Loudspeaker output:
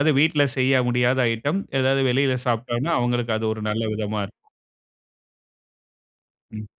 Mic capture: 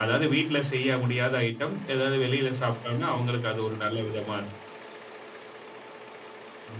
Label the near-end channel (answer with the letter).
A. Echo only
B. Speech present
A